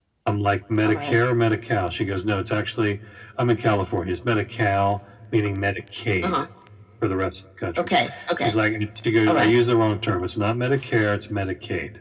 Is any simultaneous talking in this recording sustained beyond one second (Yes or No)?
No